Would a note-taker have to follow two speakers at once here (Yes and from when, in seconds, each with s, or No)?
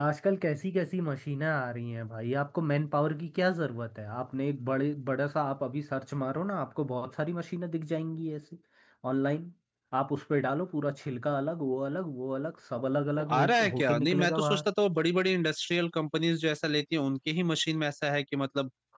Yes, from 13.2 s